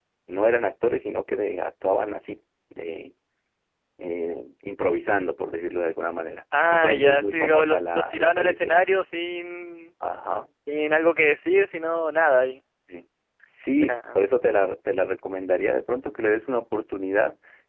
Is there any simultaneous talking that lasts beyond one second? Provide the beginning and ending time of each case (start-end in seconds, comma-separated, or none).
6.7-8.9